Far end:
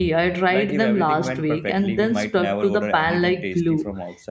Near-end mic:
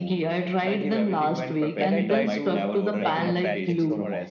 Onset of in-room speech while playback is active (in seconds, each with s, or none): 1.8 s